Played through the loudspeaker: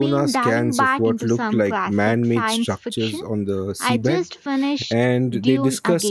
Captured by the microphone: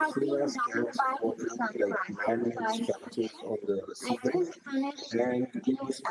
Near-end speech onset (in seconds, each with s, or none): none